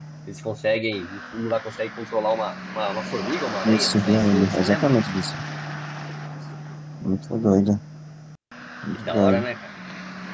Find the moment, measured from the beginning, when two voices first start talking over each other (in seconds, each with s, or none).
3.6 s